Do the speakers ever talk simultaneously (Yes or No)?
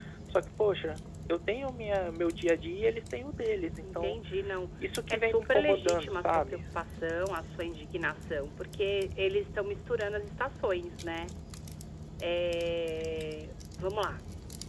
Yes